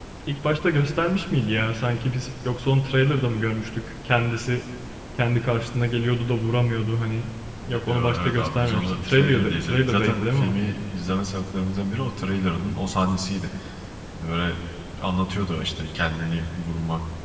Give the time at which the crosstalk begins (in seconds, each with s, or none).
7.9 s